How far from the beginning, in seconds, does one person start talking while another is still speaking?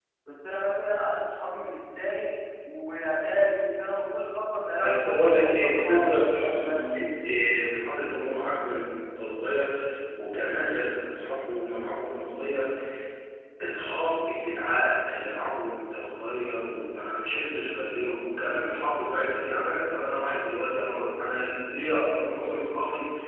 5 s

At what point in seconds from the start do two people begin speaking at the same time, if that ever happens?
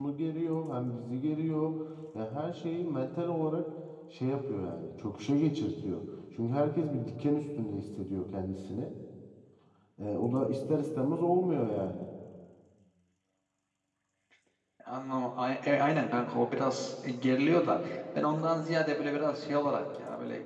none

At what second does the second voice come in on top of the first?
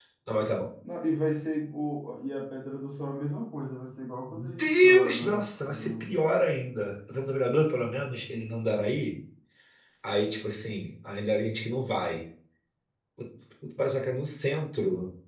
4 s

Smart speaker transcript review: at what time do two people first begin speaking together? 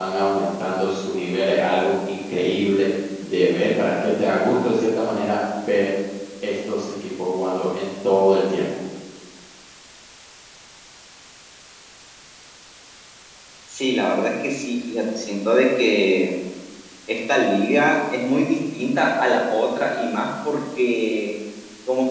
none

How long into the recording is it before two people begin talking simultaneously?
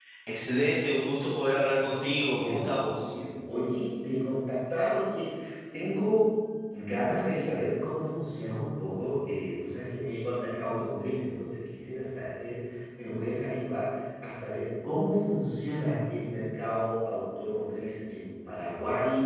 2 s

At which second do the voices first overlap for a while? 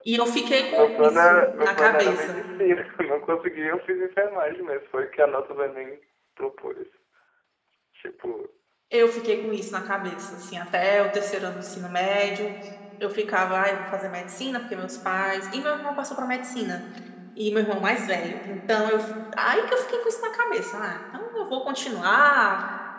1 s

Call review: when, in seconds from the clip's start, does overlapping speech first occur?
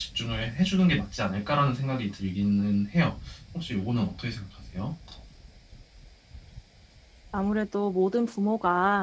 none

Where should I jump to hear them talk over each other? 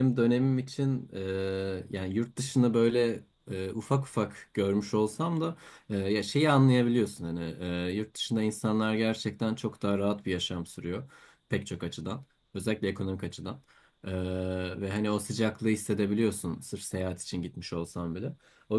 none

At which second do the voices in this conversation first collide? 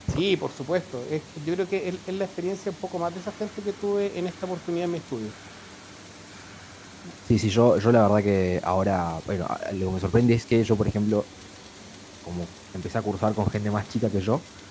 none

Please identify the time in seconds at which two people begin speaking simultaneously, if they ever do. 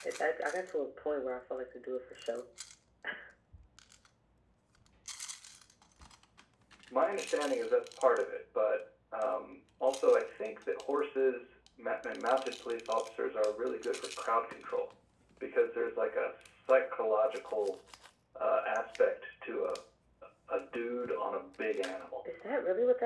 none

